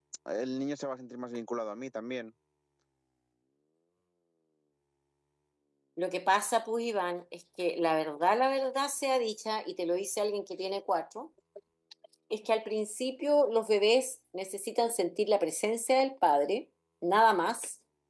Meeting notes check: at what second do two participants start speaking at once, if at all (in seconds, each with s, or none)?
none